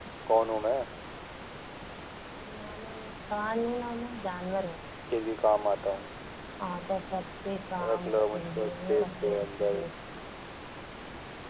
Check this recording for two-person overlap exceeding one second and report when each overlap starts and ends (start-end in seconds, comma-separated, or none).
7.9-9.8